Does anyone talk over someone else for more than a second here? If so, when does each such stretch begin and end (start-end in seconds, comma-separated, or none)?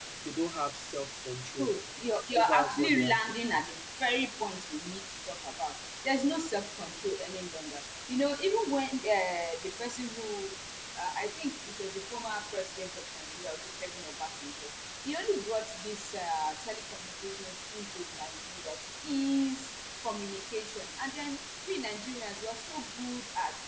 2.4-3.6